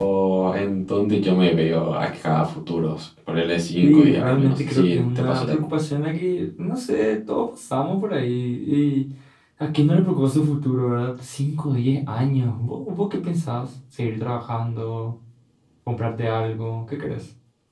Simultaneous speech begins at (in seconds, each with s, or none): 3.8 s